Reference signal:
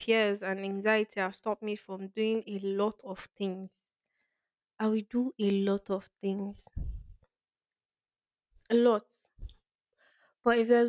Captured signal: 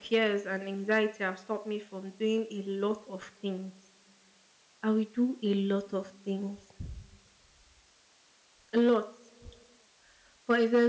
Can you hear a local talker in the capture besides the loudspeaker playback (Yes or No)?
No